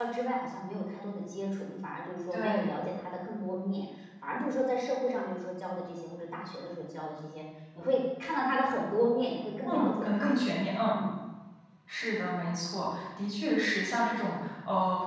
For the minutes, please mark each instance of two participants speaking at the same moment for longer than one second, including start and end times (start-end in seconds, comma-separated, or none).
9.7-11.0